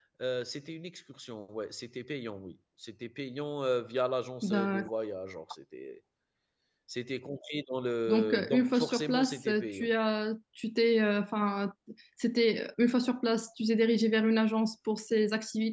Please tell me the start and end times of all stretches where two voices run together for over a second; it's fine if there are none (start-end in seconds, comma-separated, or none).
8.1-9.9